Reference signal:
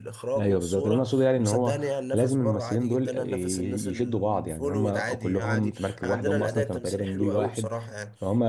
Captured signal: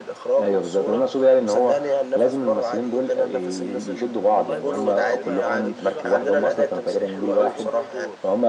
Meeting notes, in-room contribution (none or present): present